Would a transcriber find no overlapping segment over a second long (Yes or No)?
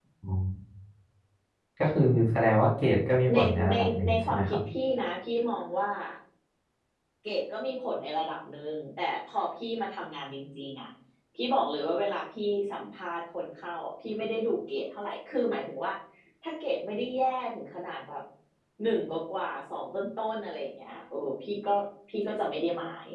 No